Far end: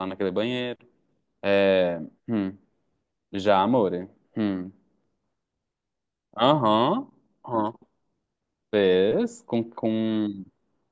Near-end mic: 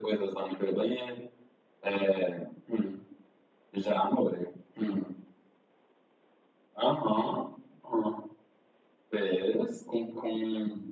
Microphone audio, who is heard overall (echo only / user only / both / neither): echo only